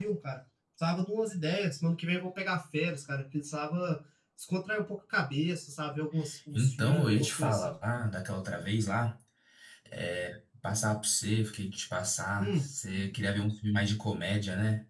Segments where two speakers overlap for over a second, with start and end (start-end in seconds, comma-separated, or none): 6.5-7.7